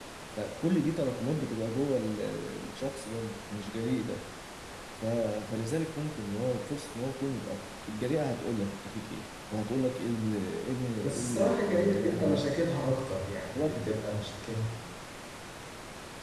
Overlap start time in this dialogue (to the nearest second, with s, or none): 11 s